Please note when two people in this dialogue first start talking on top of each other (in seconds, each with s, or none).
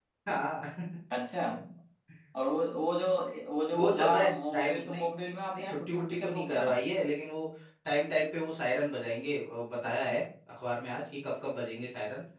3.7 s